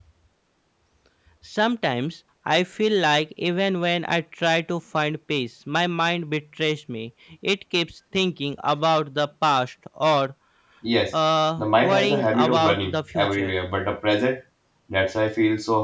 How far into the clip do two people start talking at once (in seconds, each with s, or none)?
11.6 s